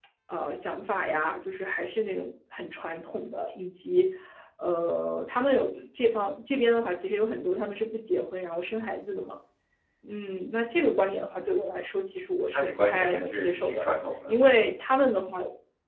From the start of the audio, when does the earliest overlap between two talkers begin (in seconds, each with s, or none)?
12.5 s